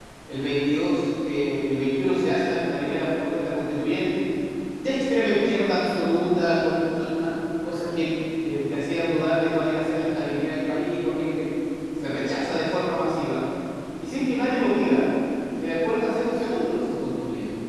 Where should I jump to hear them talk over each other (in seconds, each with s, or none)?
none